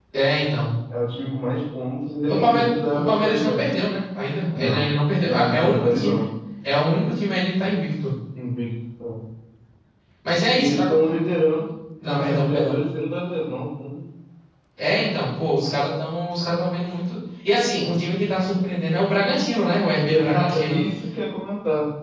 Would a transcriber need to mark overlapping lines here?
Yes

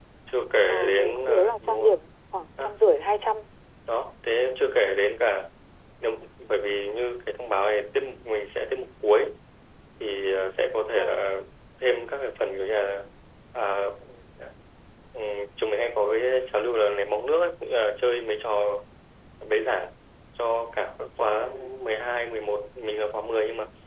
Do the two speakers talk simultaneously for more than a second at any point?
Yes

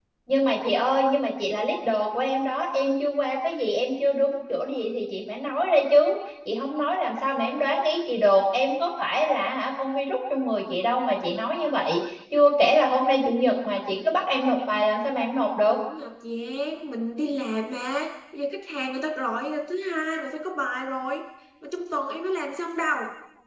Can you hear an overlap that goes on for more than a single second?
No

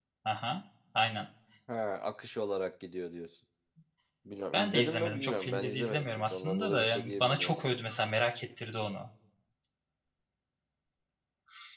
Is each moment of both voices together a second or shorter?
No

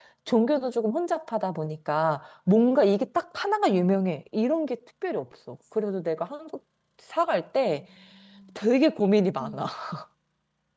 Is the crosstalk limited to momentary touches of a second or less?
Yes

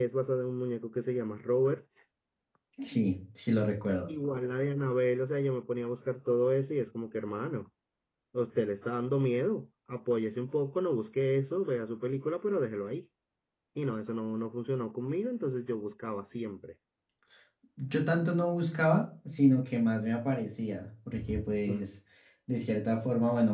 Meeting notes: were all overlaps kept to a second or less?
Yes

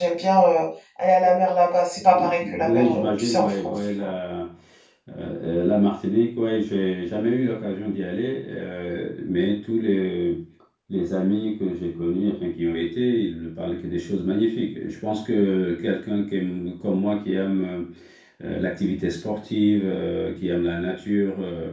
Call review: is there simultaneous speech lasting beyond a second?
Yes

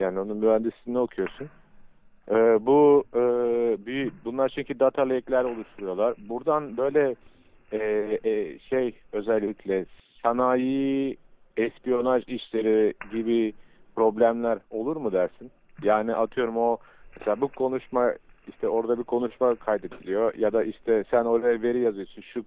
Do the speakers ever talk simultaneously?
No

